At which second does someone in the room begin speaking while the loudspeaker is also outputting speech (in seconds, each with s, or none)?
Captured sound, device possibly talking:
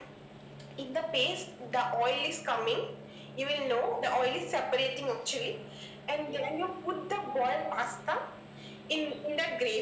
none